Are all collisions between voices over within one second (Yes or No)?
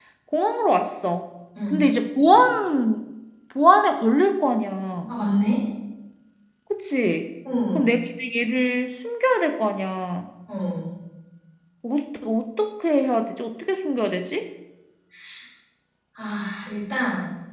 Yes